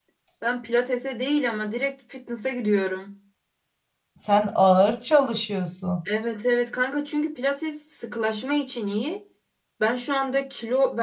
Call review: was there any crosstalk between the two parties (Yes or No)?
No